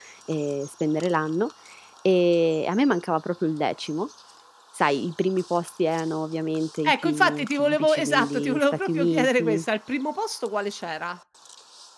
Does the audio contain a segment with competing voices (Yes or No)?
Yes